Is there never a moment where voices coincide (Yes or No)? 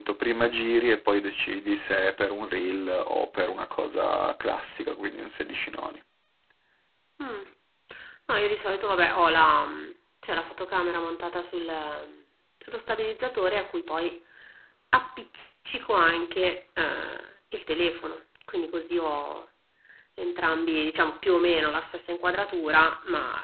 Yes